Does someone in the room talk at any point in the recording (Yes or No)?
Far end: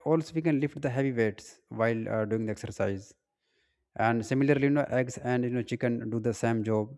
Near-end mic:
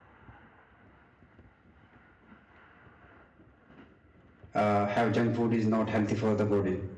Yes